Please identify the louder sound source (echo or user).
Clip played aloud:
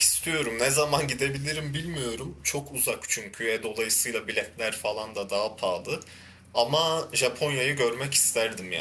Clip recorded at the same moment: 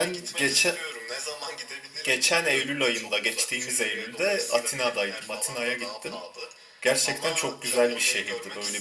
user